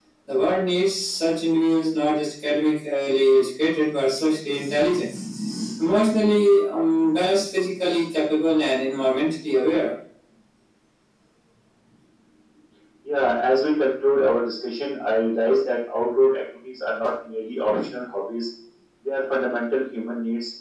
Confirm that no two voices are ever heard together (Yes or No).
Yes